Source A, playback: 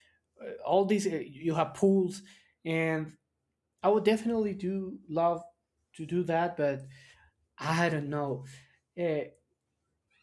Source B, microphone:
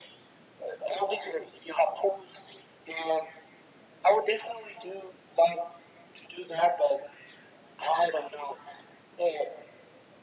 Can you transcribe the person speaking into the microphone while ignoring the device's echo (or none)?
none